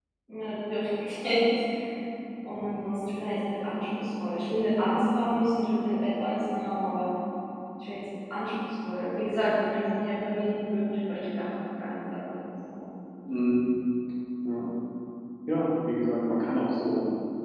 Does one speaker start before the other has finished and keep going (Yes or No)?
No